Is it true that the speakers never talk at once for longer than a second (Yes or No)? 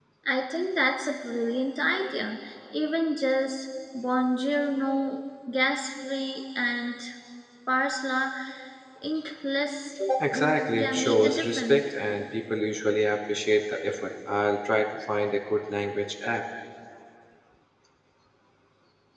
No